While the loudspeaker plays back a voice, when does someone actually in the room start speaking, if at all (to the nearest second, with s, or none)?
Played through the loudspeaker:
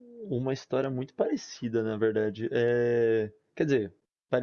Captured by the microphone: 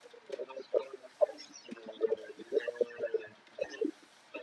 none